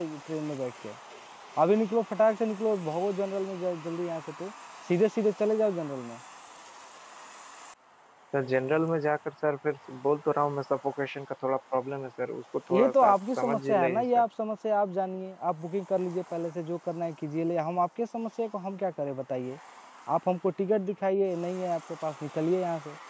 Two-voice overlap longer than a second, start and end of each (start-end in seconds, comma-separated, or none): 12.7-14.2